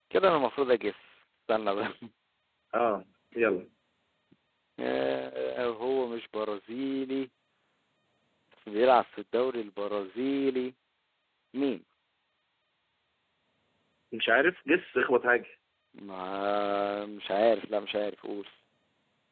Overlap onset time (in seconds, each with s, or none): none